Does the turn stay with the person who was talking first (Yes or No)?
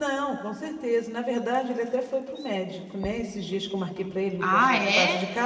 Yes